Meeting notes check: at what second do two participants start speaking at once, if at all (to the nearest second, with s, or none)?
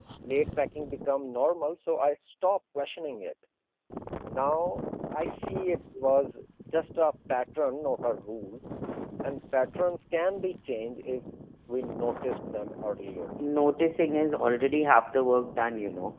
none